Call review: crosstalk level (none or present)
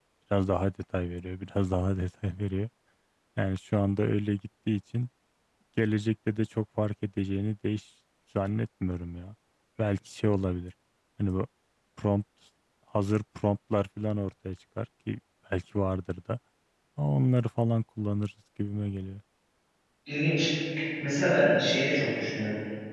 none